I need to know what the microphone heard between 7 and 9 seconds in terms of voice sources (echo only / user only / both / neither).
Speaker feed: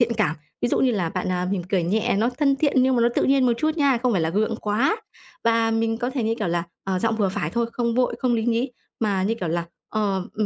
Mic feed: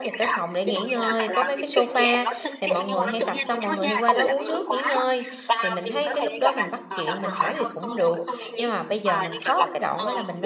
both